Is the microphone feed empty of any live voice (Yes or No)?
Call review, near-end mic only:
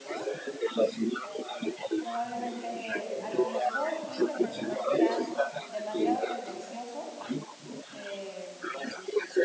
No